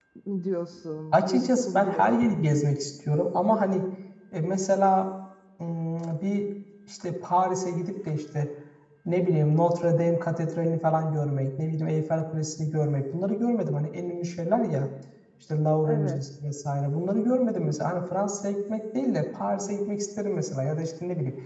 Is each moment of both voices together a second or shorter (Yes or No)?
No